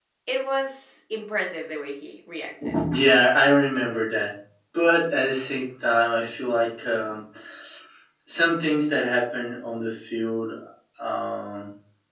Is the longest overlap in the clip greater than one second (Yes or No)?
No